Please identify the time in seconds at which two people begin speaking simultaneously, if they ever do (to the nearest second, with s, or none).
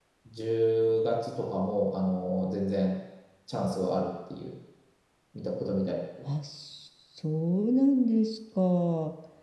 none